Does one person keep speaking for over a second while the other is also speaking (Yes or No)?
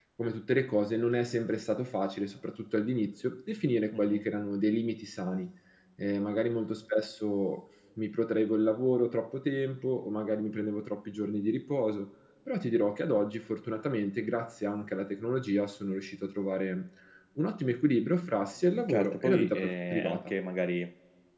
Yes